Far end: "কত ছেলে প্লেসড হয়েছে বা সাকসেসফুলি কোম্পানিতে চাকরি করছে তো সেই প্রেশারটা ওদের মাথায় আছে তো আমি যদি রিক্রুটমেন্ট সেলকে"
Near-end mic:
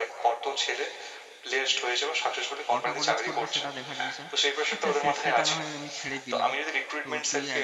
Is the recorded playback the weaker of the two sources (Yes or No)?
No